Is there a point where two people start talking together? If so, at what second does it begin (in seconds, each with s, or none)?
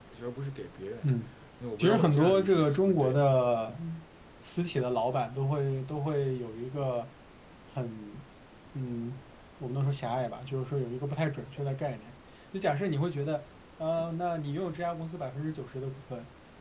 1.8 s